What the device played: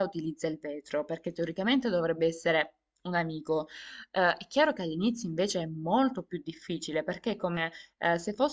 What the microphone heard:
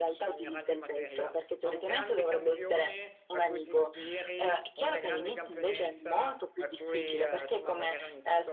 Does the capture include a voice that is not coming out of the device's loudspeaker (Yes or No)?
Yes